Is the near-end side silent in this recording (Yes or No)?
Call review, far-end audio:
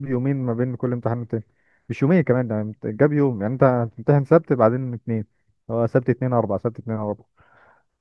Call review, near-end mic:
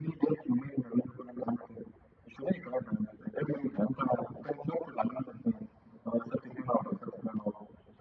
Yes